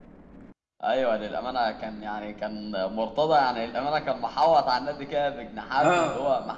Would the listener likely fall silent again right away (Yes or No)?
Yes